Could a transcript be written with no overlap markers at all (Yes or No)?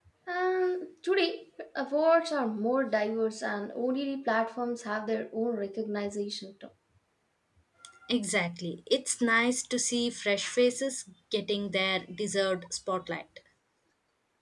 Yes